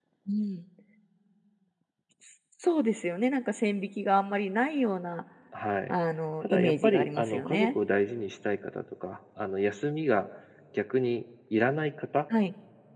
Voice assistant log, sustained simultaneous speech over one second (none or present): present